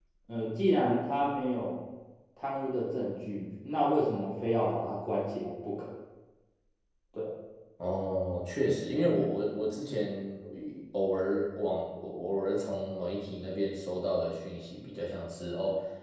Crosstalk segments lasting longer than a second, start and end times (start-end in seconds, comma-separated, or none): none